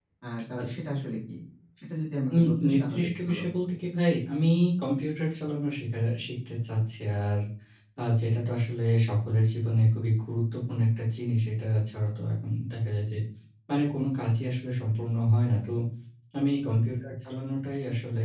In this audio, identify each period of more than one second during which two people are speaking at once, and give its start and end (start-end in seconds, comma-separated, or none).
2.3-3.6